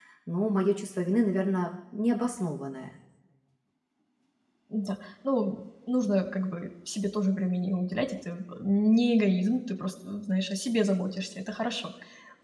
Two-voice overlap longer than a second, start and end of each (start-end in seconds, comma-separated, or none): none